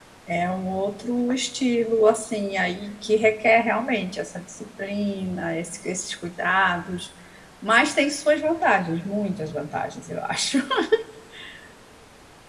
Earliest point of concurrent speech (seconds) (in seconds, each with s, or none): none